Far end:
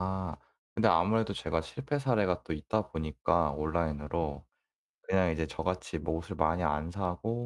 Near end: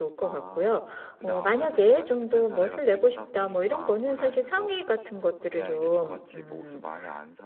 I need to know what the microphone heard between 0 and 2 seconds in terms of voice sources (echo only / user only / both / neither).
both